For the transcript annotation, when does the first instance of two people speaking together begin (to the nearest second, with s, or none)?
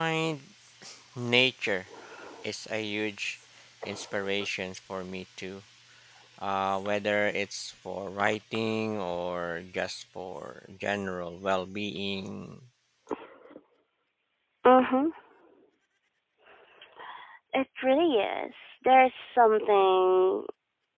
none